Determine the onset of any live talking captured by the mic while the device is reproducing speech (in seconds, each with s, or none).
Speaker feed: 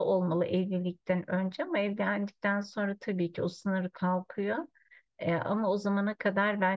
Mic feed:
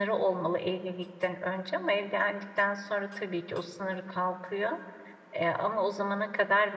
none